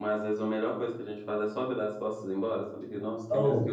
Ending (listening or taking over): taking over